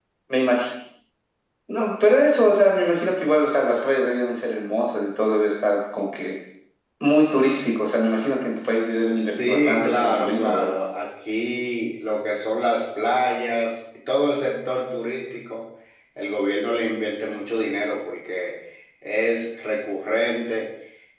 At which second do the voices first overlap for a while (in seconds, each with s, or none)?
9.3 s